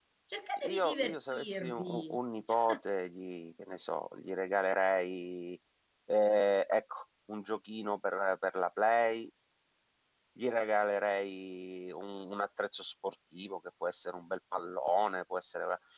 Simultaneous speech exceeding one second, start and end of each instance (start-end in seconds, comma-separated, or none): 0.6-2.2